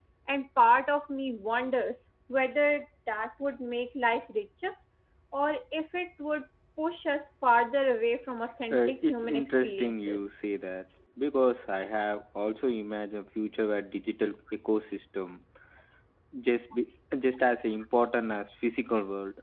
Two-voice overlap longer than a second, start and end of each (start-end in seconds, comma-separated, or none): 8.7-10.2